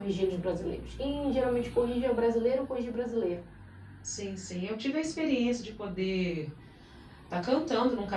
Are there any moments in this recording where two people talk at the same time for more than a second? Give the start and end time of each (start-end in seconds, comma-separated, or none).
none